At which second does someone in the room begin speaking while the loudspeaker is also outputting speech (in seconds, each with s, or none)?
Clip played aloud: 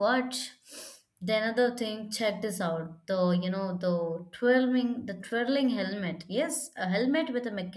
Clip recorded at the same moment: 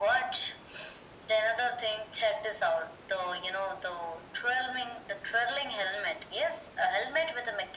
none